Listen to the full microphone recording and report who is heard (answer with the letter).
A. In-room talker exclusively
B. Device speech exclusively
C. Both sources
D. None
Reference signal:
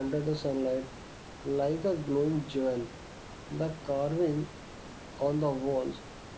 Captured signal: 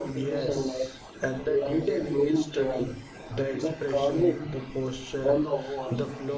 C